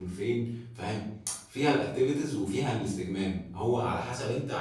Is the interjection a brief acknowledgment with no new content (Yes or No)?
Yes